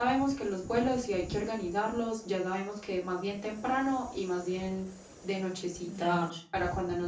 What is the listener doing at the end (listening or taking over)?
listening